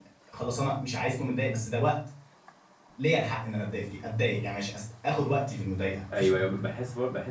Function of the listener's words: taking over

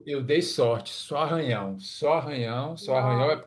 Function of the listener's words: listening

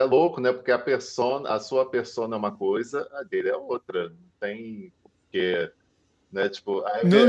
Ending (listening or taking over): taking over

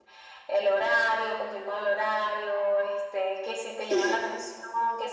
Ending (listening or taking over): listening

